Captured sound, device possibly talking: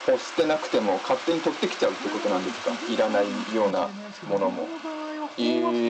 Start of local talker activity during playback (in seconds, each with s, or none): 1.9 s